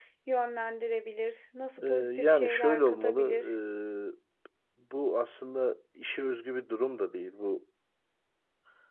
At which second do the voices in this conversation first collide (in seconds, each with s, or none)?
1.8 s